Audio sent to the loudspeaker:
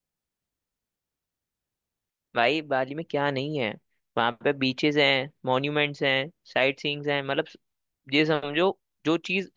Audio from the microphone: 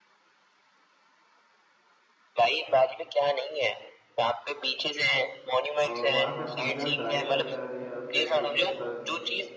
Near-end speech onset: 5.9 s

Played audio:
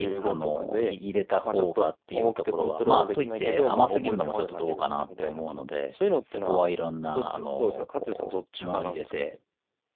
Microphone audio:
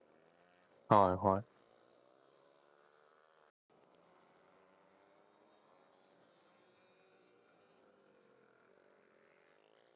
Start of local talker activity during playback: 0.9 s

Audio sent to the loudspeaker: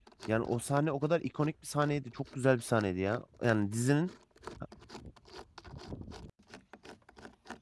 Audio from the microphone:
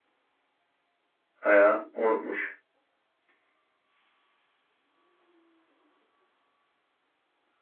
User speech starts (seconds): 1.4 s

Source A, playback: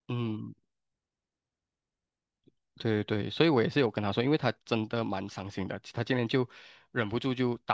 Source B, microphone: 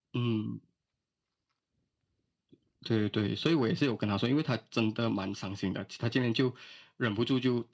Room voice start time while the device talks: none

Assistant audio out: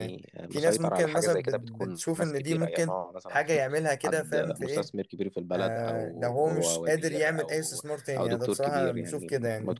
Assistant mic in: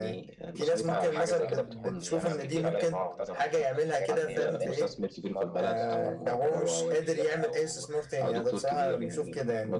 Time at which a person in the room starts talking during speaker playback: 0.9 s

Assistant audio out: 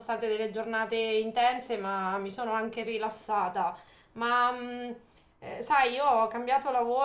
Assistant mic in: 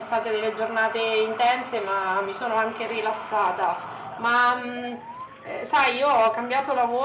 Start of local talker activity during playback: none

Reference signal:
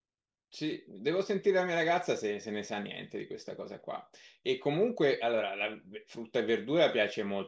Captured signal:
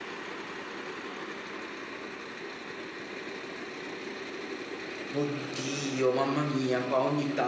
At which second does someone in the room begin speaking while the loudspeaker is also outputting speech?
5.1 s

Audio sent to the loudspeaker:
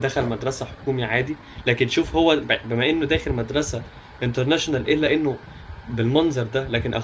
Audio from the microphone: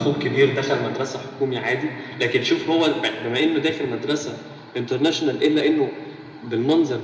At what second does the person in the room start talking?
none

